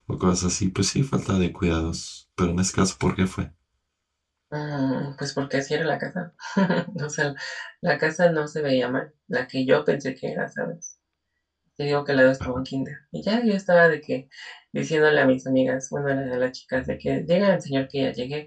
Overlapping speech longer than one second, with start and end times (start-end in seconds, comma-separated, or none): none